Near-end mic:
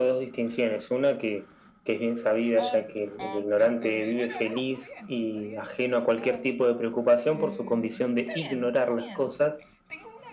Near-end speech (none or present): present